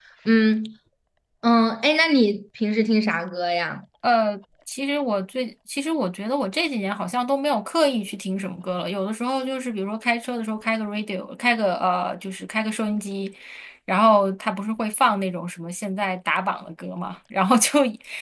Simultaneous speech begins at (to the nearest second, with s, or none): none